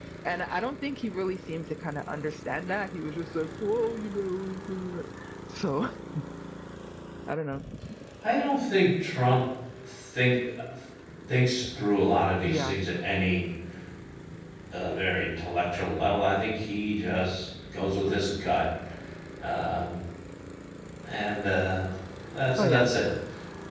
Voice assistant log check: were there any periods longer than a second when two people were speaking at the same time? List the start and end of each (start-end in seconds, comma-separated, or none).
none